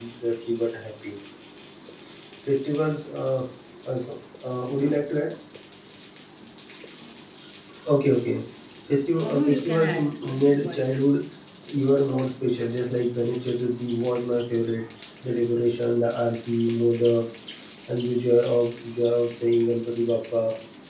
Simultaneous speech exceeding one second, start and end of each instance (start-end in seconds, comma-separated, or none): 9.2-10.9